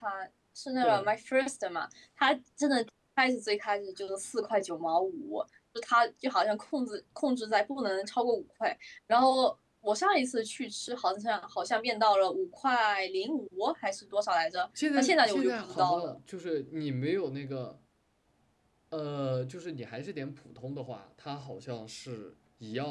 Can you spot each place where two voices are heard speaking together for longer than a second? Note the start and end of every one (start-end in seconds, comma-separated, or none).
15.0-16.2